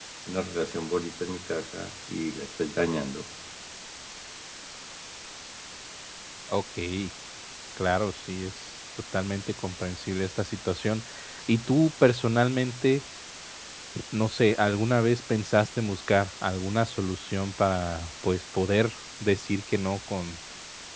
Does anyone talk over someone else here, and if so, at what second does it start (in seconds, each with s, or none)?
none